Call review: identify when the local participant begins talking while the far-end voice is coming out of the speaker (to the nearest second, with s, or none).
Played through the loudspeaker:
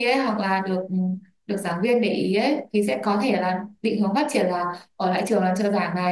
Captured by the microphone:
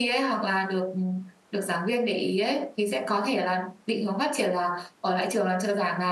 none